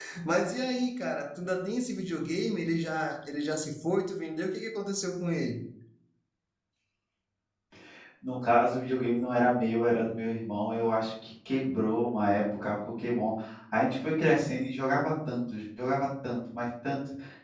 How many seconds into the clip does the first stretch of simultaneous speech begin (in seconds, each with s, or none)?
none